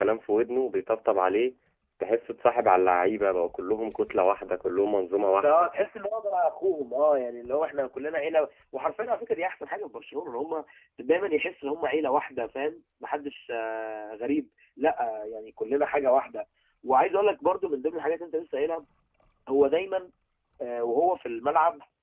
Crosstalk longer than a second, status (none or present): none